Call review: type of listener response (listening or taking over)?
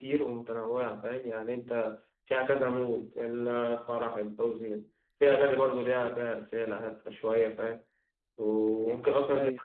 listening